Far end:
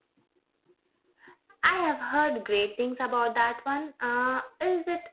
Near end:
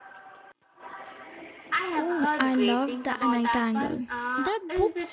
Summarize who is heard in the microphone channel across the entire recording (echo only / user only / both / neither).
both